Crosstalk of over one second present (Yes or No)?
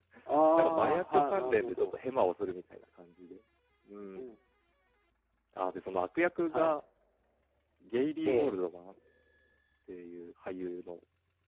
Yes